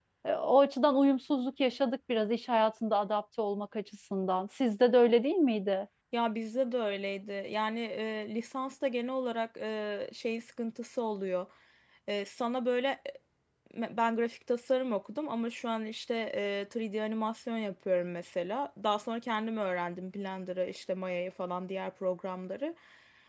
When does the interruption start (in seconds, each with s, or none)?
none